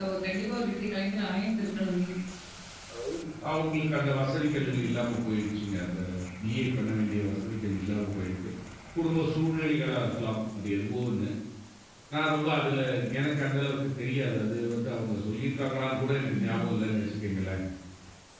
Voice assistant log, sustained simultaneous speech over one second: none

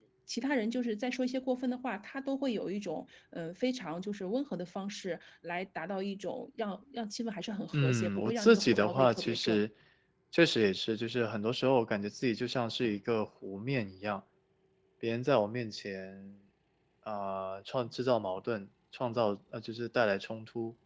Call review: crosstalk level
present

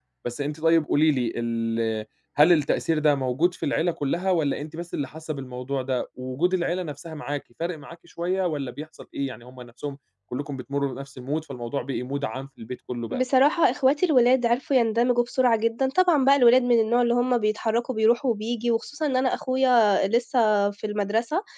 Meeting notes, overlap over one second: none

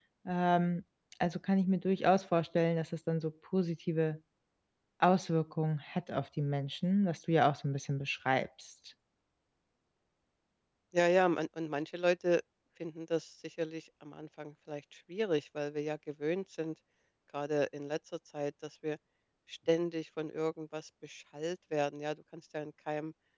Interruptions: none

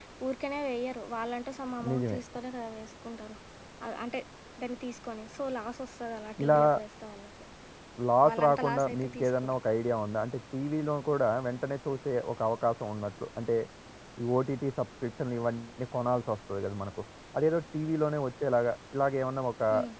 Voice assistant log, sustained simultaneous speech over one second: present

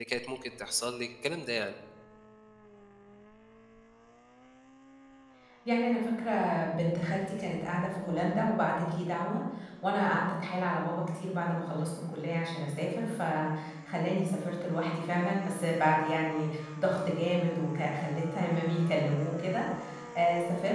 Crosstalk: none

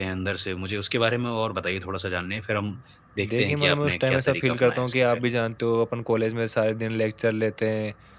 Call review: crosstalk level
present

